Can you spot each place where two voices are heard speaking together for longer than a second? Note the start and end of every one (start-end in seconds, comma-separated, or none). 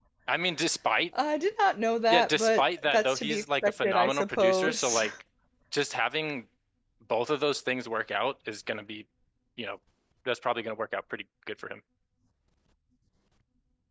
2.1-5.0